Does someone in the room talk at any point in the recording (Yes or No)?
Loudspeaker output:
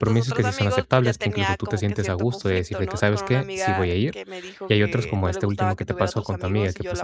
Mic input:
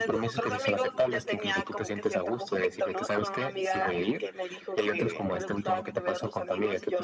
No